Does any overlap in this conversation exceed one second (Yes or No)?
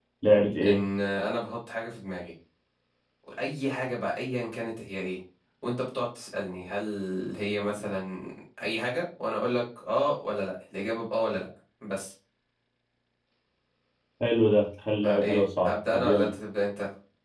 Yes